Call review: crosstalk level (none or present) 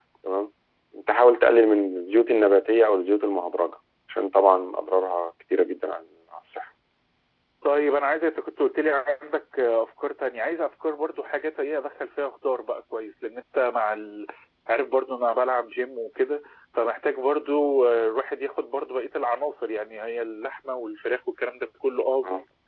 none